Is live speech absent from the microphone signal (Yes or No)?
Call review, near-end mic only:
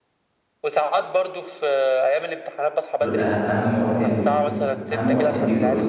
No